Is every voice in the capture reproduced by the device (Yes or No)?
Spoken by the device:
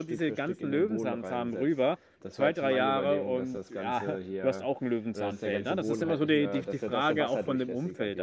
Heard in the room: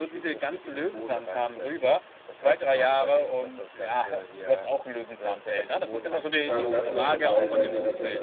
No